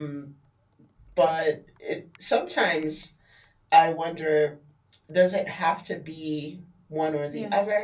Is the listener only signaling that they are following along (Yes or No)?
Yes